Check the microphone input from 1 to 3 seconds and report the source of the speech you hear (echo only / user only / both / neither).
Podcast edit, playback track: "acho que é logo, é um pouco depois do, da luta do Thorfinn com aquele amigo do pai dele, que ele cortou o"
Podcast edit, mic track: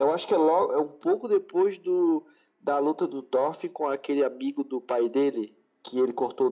echo only